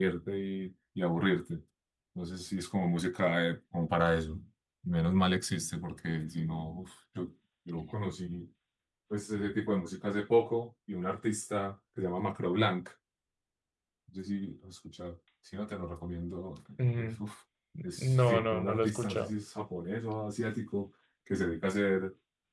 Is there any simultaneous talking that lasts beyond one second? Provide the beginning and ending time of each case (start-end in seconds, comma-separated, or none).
18.0-19.3